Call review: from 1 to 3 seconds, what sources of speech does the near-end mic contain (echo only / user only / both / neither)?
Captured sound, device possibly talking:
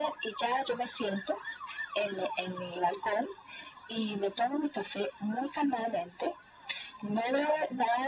echo only